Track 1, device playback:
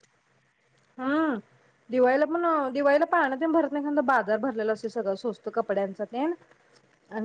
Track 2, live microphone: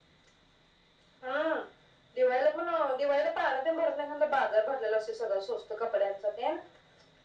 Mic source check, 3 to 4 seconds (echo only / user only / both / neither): echo only